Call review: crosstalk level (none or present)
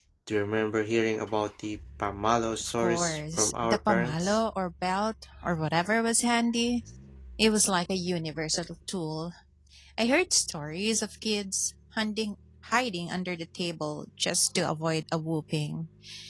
present